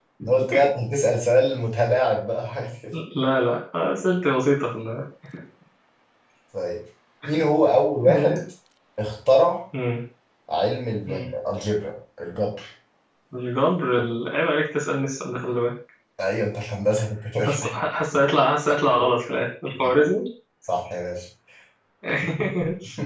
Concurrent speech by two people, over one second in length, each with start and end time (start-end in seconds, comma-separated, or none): none